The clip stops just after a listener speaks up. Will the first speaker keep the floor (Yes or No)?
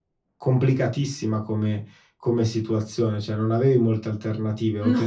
Yes